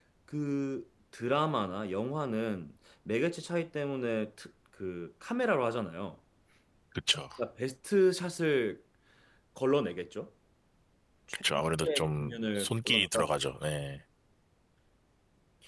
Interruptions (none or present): present